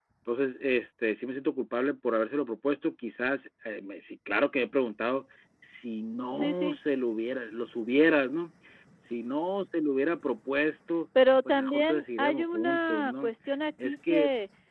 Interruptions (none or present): present